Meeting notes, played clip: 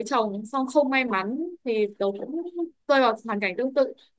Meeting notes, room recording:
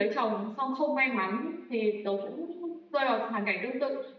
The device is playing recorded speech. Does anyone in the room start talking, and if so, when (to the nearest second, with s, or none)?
none